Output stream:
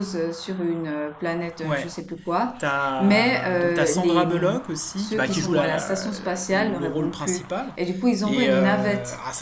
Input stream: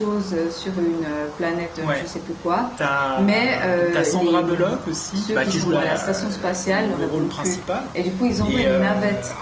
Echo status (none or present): present